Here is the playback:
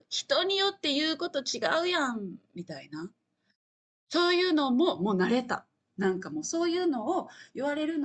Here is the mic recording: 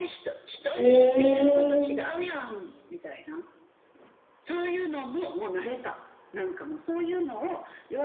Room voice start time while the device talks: 1 s

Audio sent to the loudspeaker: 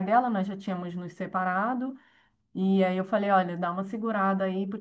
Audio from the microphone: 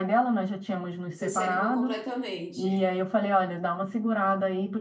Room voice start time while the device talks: 1 s

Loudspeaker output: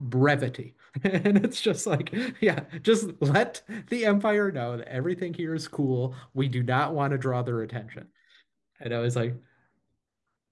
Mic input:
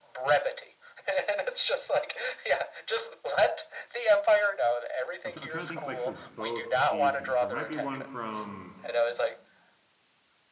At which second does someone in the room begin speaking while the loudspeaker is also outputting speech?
5 s

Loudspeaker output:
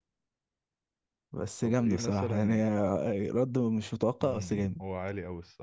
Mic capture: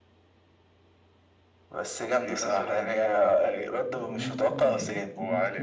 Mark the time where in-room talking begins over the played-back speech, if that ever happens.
4 s

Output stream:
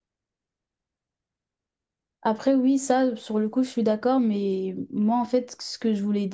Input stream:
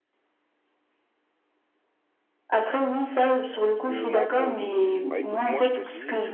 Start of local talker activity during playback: 4 s

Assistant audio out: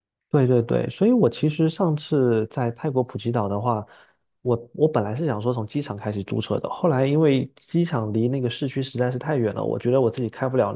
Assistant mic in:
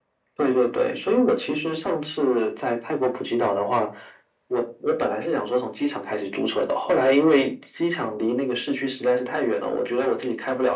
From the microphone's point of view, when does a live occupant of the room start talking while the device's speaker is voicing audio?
none

